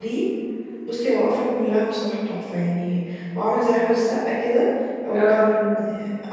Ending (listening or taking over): listening